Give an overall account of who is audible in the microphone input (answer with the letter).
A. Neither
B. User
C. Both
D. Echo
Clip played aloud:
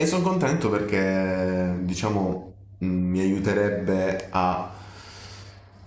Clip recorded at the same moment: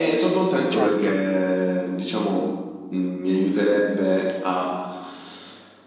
C